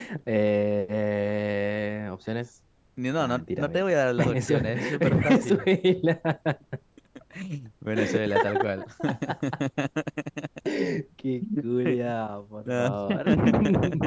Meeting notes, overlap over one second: present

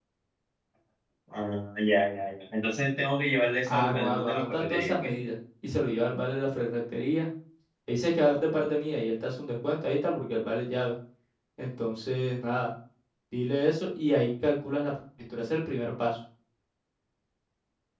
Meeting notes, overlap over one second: present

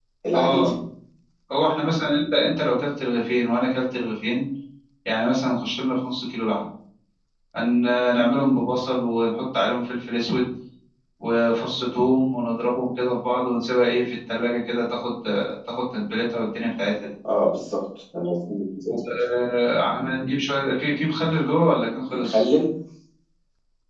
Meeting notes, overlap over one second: none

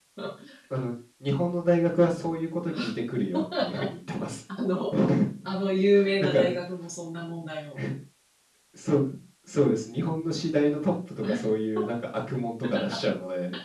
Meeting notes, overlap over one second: none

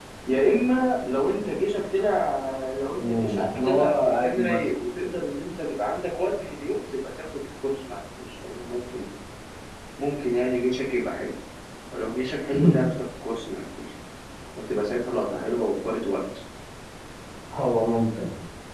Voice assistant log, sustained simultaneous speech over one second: present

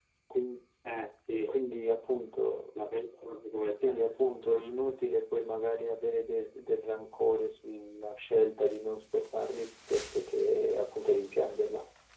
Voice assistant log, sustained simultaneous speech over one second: none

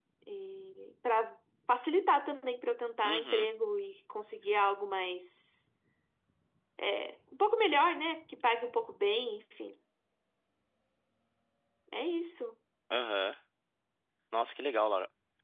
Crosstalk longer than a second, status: none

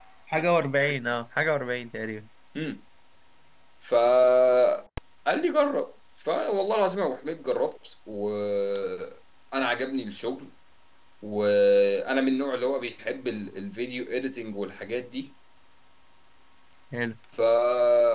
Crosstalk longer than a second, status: none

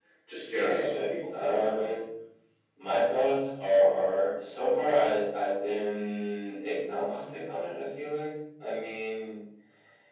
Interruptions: present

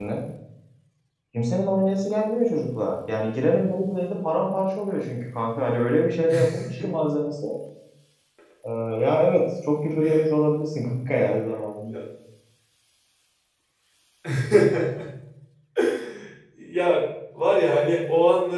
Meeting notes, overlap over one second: none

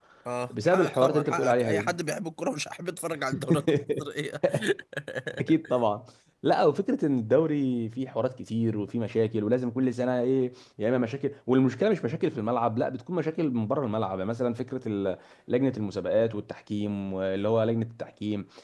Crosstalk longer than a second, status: present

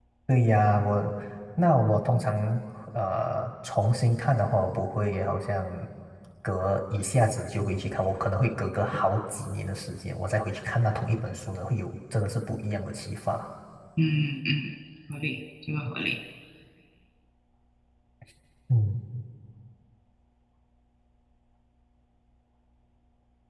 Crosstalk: none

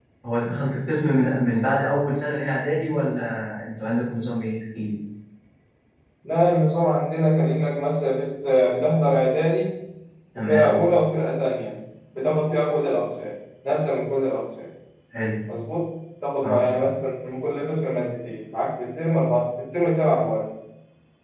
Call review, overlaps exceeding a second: none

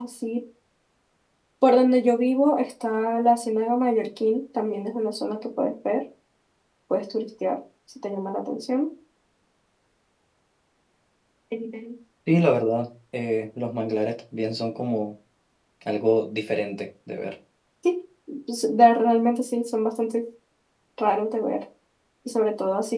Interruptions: none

